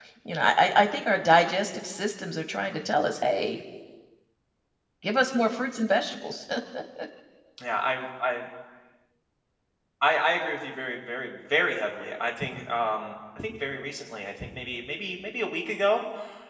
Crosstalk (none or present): none